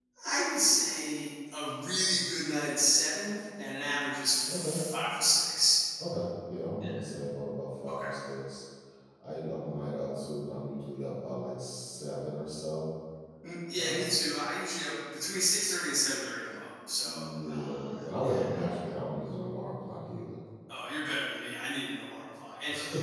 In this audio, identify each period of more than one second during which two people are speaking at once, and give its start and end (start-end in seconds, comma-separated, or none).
17.0-18.4